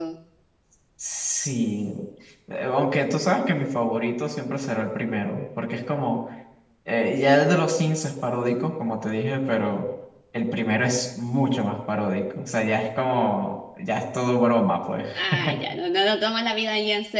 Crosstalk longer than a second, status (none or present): none